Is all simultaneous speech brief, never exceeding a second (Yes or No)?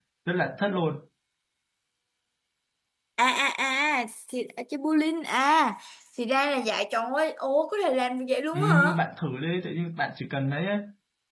Yes